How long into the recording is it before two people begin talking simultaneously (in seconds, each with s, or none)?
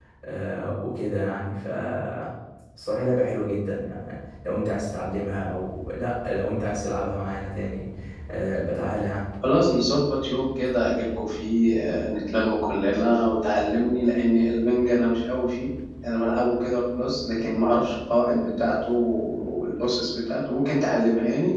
none